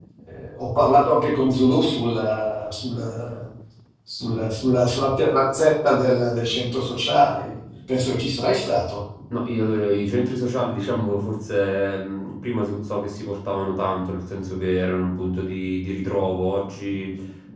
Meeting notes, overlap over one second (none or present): none